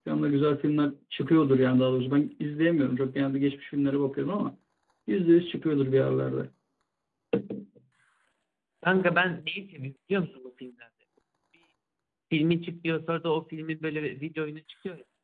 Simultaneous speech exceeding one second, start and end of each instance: none

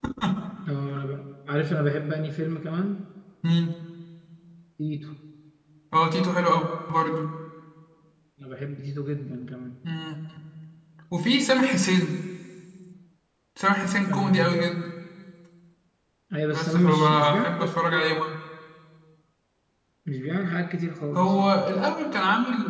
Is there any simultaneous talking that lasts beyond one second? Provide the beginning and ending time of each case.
16.5-18.1

